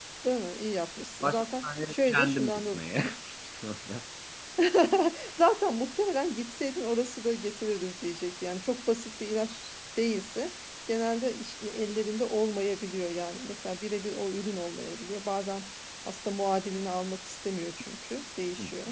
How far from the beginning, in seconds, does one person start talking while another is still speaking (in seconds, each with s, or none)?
1.2 s